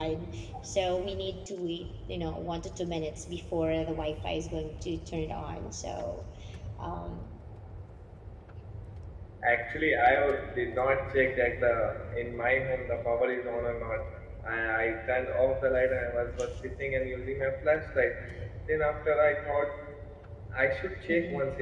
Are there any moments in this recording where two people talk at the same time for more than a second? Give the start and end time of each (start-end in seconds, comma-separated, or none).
none